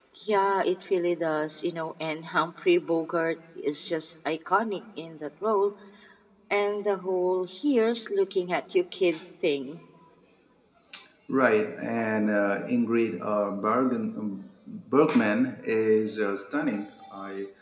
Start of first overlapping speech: none

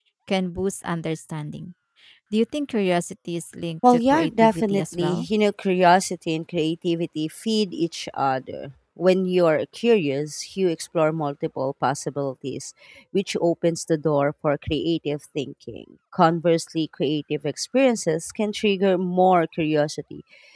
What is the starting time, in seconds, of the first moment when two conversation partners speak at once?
3.8 s

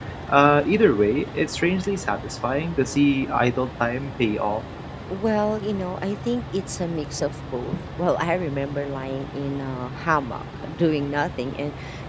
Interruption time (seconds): none

